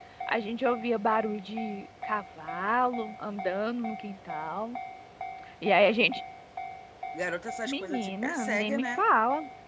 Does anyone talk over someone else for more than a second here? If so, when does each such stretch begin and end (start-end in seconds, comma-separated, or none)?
7.7-9.0